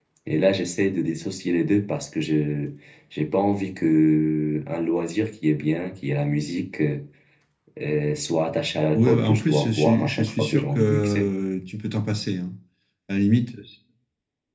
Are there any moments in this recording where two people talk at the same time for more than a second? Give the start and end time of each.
8.9-11.3

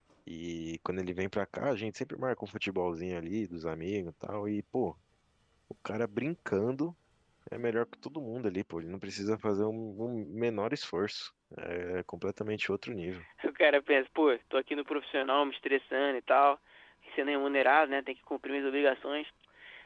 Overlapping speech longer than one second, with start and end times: none

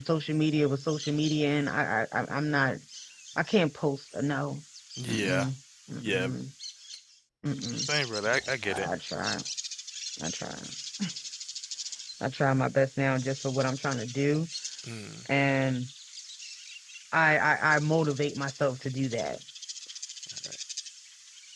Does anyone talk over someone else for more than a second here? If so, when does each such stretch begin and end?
none

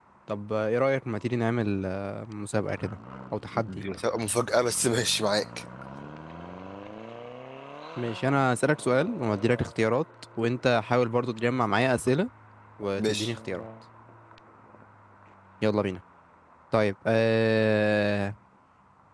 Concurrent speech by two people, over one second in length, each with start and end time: none

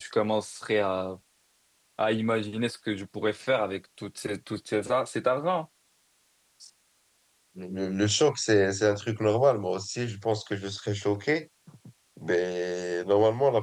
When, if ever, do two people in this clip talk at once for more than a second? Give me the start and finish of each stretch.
none

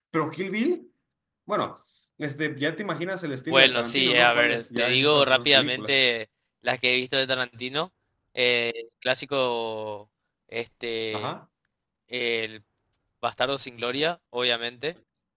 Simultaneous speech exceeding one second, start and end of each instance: 3.5-6.0

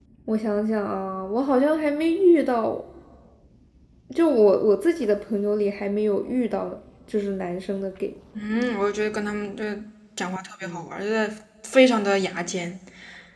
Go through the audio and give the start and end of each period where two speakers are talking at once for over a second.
none

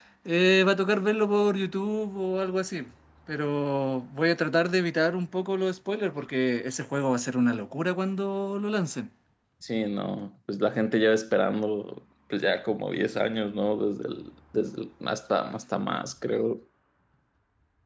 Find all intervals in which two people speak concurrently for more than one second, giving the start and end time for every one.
none

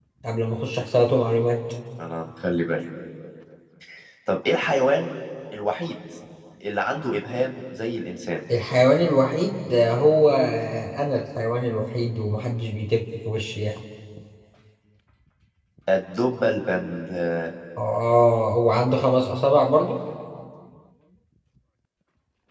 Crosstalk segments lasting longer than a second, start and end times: none

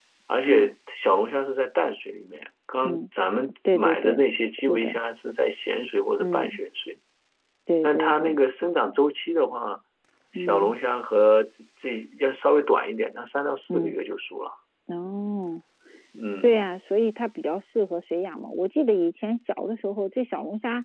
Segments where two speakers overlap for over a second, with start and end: 3.7-4.9

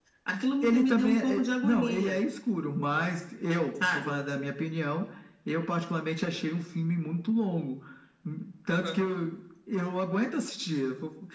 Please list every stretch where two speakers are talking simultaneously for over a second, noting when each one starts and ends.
0.6-2.2

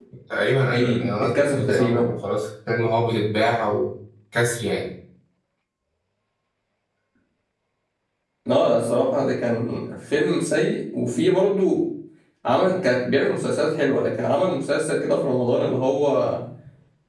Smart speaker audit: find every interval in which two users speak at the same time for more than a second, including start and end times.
0.7-2.1

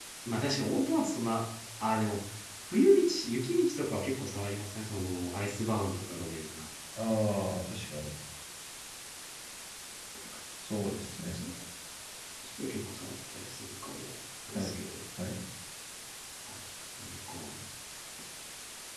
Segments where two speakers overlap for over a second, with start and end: none

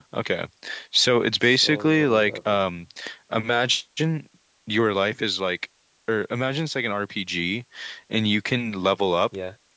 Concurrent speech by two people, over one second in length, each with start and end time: 1.5-2.8

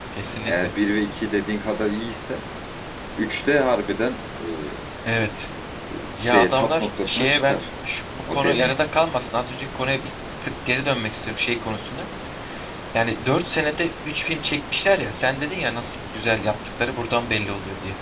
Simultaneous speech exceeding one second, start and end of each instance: 6.2-7.6

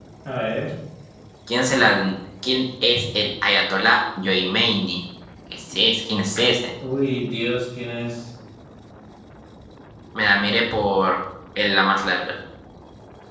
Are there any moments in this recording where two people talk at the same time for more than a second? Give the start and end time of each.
none

